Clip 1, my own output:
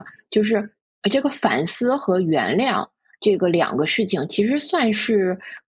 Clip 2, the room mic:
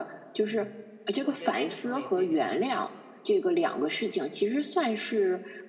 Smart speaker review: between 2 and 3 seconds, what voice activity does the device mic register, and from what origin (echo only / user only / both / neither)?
both